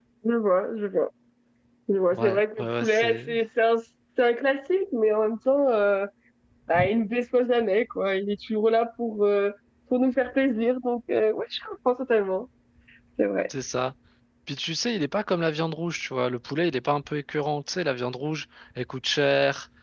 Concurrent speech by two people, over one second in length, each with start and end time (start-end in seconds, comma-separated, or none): 2.1-3.3